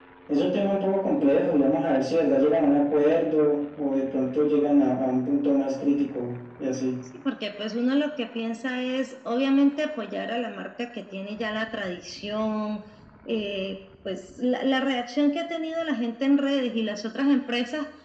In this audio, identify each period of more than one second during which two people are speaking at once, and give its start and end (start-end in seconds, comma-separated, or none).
none